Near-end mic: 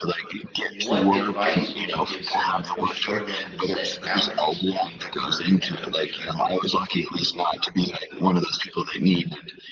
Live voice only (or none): What advice would you give someone who's struggling to set boundaries between their work and their leisure?